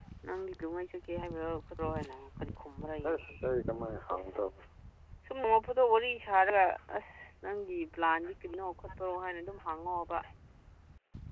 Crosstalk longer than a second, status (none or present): none